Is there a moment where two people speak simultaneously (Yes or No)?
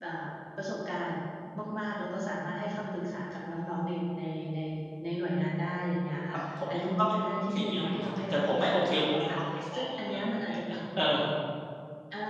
Yes